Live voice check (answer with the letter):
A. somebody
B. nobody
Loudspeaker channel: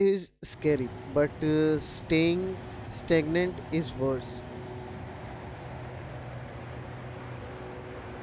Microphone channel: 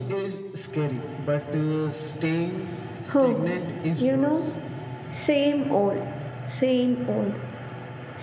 A